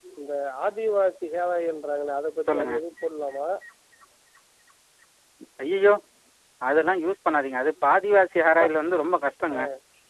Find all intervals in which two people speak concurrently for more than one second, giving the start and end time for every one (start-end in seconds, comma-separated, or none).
none